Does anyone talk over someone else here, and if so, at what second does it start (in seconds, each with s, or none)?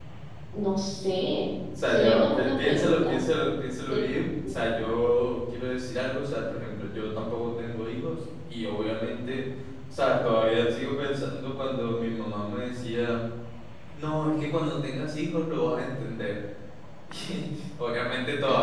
1.8 s